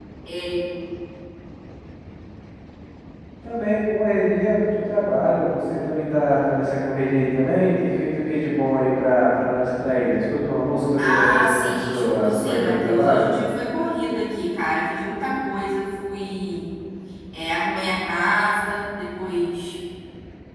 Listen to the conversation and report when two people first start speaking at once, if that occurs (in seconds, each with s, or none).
11.0 s